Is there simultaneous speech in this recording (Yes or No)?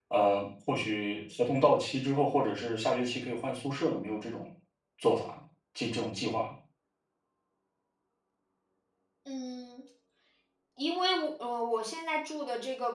No